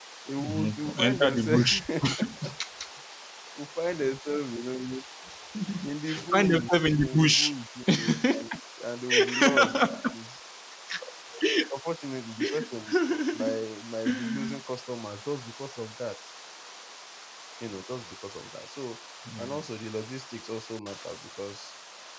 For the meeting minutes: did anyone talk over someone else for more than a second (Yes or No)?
Yes